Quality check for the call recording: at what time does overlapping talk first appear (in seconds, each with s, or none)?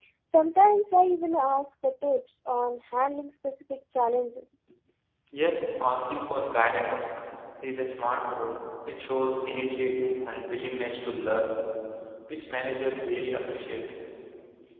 none